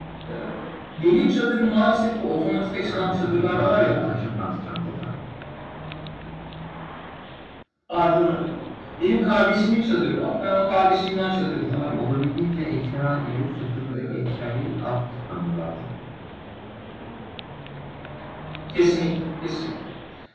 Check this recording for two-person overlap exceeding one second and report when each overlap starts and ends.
2.9-4.1

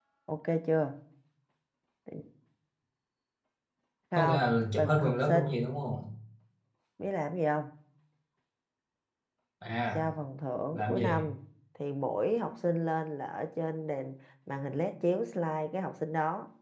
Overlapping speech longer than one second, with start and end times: 4.1-5.6

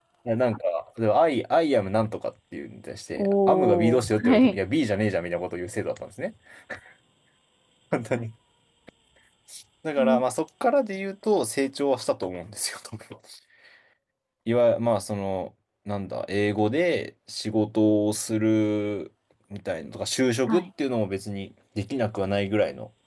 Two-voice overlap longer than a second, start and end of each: 3.2-4.6

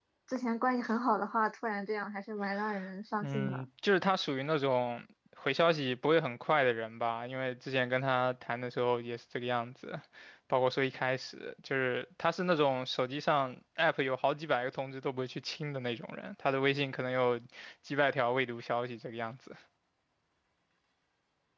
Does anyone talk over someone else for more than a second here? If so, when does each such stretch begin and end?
none

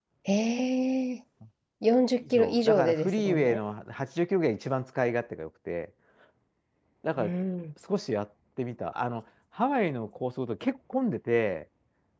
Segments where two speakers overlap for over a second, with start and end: 2.3-3.6

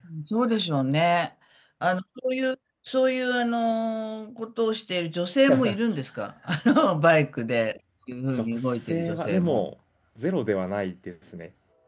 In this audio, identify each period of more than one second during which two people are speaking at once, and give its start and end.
8.3-9.6

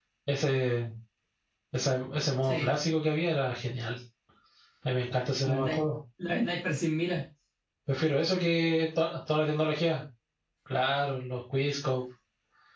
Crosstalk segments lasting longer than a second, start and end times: none

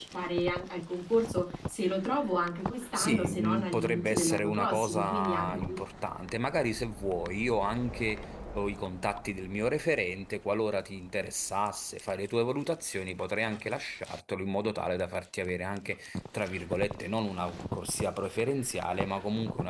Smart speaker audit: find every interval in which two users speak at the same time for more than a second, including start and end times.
2.9-5.6

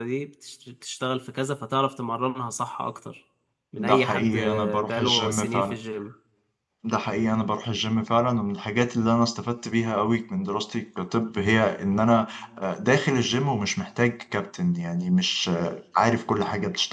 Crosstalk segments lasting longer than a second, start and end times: 3.7-5.7

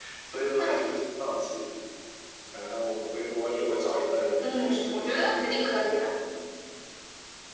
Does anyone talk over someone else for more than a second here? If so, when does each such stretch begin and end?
4.4-6.0

